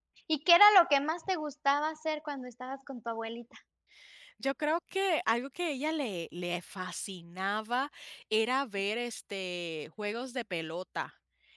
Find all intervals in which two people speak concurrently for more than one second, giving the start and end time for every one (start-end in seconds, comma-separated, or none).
none